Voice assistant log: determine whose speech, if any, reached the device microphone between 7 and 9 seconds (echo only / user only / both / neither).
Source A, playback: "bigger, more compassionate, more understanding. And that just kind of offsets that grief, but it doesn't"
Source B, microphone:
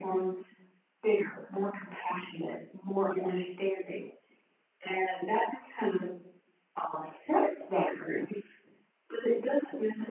echo only